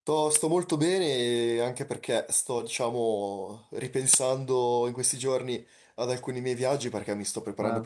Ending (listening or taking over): listening